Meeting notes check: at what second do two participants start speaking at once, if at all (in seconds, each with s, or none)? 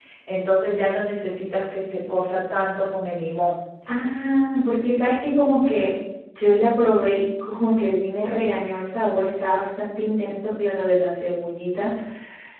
none